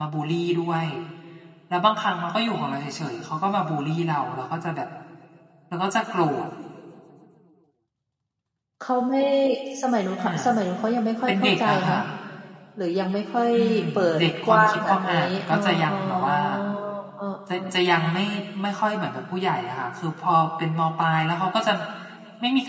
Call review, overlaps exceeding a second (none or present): present